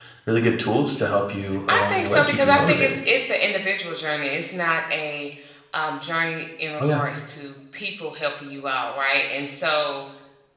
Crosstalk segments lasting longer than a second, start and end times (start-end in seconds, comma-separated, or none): 1.7-3.0